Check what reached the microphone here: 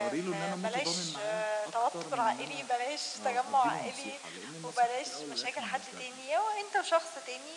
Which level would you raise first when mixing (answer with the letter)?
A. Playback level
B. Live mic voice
B